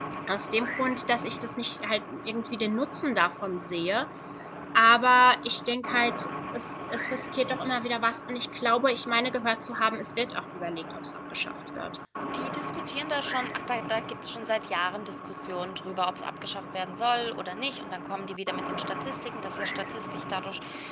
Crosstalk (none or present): none